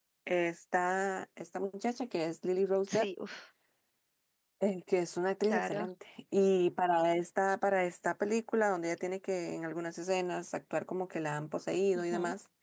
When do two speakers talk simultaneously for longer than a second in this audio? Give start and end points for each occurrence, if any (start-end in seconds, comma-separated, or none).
none